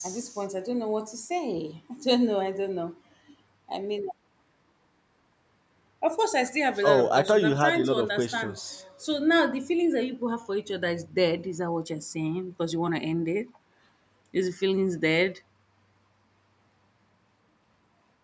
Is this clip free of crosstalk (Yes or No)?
No